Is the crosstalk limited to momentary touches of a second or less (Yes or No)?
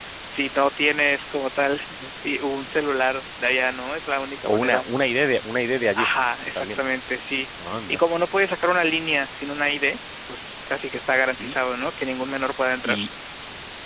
Yes